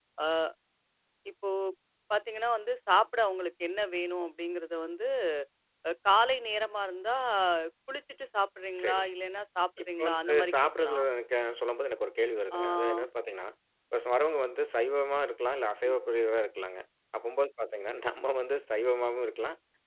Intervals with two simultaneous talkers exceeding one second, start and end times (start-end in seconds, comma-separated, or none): 9.8-11.0